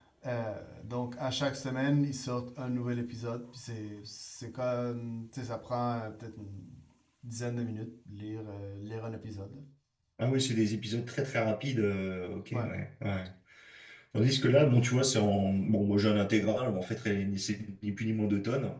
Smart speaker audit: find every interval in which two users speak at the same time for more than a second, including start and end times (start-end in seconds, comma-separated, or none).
none